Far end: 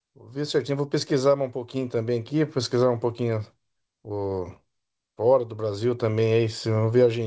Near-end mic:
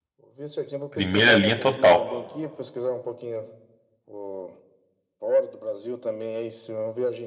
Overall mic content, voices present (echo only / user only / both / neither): both